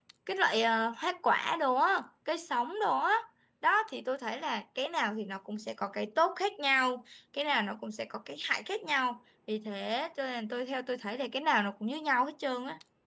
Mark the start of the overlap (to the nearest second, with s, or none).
none